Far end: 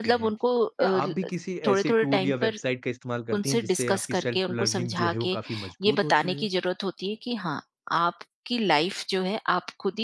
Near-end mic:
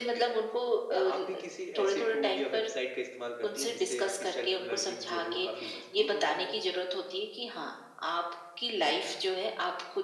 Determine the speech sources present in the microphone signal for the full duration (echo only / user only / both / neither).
echo only